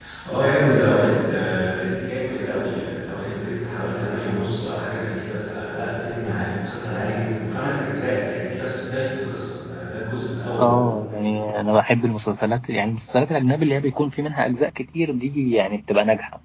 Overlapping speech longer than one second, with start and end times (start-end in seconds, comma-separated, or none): none